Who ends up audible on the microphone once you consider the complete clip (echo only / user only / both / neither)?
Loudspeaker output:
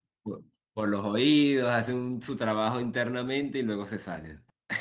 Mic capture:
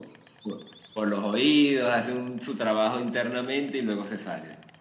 echo only